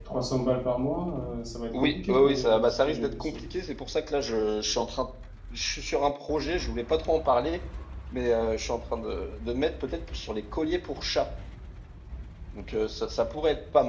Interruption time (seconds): 1.7 s

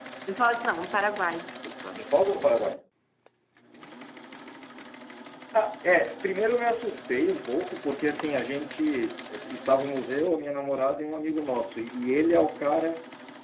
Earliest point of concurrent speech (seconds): none

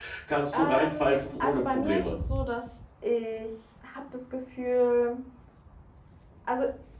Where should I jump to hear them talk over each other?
0.5 s

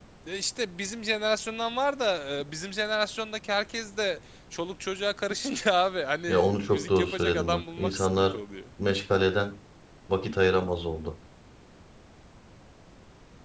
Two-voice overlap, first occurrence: 6.3 s

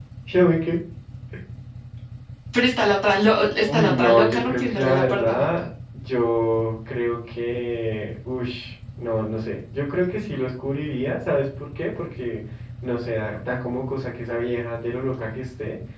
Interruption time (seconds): 3.6 s

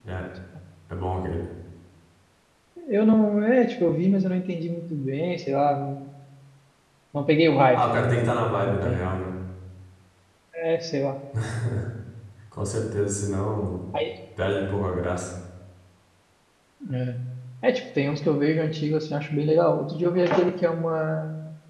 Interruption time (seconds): 7.8 s

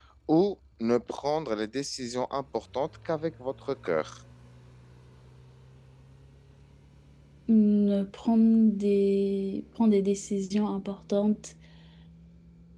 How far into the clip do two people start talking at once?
none

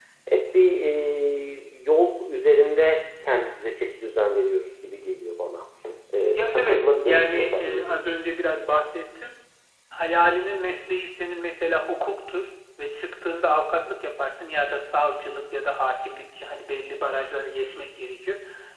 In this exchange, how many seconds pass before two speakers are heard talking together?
6.3 s

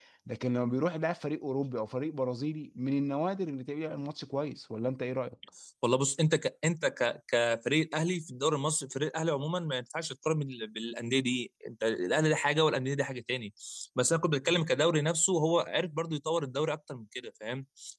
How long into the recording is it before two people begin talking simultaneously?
none

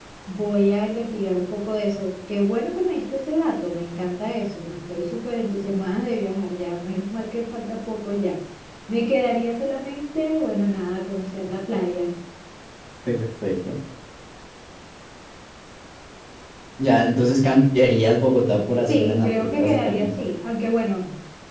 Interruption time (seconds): 18.8 s

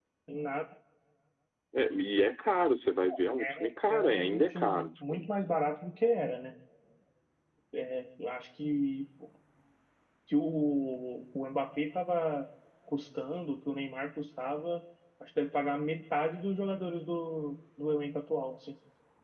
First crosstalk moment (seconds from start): 3.4 s

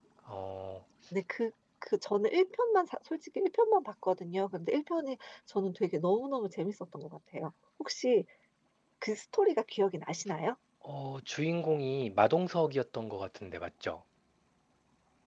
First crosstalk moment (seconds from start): none

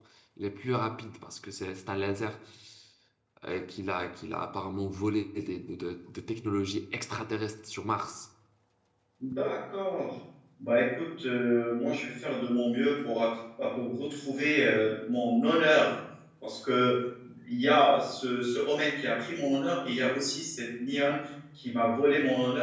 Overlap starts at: none

